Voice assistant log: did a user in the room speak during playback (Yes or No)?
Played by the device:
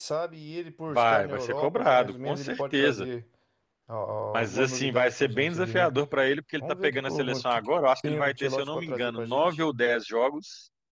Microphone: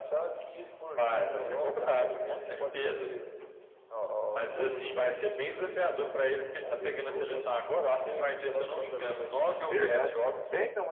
Yes